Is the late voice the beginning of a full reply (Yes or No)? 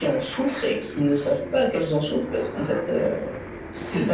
Yes